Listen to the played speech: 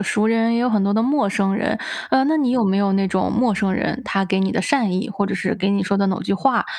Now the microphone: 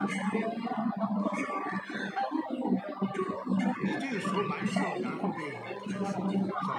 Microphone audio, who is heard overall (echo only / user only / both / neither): both